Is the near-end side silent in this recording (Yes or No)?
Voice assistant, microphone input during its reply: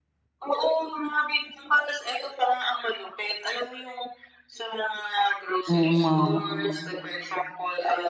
No